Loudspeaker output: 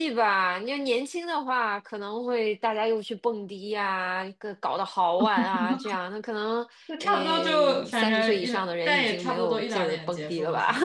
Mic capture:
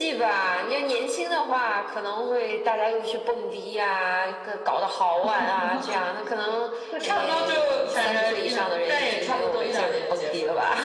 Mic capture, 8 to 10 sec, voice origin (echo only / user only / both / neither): echo only